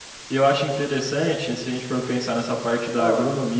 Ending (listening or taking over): listening